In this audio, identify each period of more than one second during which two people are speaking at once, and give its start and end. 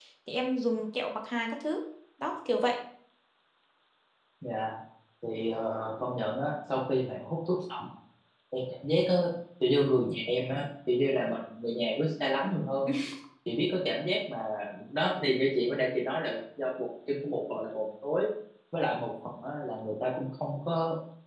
none

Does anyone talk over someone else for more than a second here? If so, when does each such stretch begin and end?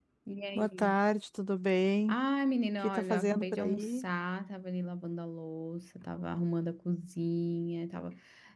2.8-4.0

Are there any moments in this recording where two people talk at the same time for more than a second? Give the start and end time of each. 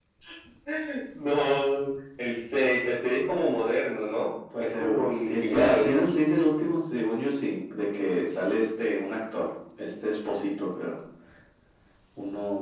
4.6-5.9

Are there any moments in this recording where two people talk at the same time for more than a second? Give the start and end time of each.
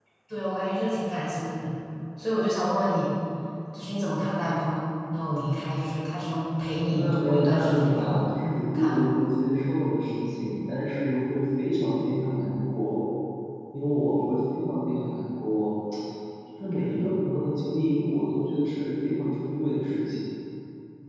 6.8-8.3

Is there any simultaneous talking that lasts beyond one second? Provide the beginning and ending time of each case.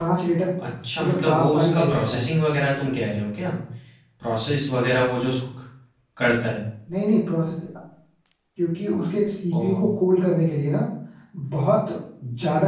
1.0-2.2

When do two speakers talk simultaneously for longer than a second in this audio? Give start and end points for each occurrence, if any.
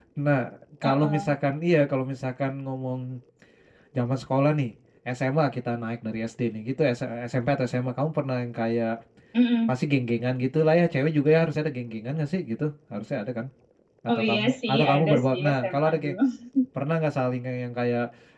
14.1-16.1

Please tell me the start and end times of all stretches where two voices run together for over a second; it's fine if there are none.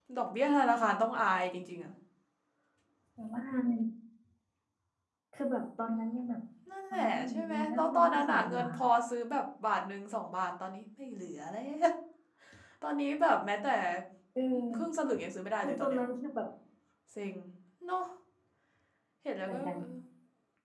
6.9-8.7

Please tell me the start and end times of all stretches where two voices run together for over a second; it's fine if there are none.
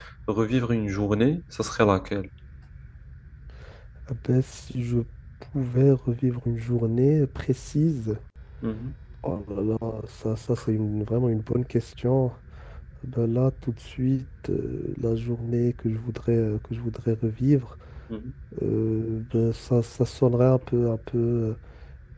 none

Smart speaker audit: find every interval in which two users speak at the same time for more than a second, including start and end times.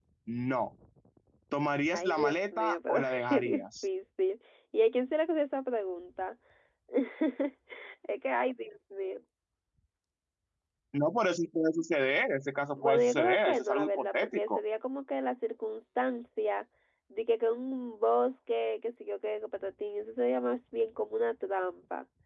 1.9-3.8, 12.8-14.6

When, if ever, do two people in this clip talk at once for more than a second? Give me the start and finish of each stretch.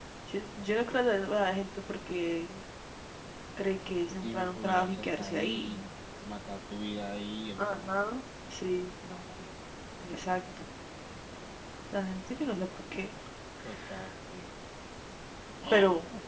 4.2-5.8

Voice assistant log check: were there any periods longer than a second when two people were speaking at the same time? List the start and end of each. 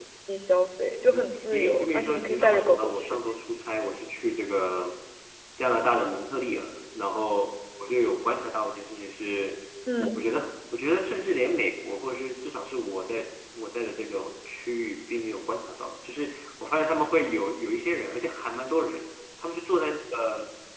1.1-3.2

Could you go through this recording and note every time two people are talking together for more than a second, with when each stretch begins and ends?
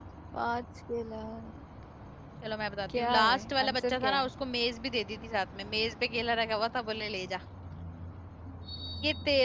3.0-4.3

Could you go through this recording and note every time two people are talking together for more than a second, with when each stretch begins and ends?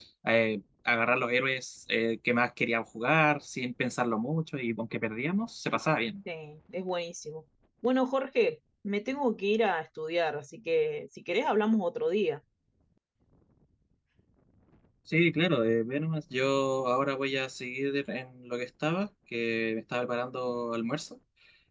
none

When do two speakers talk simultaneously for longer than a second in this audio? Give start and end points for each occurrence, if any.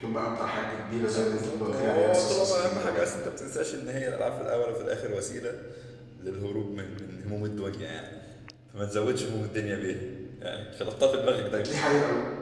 1.1-3.1

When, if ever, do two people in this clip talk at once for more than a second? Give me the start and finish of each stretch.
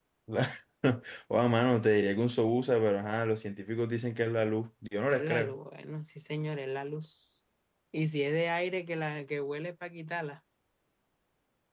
none

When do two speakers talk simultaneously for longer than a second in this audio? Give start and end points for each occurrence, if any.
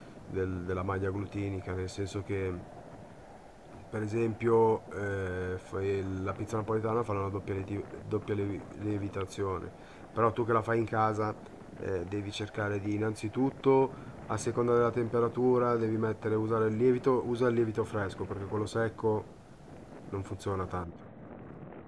none

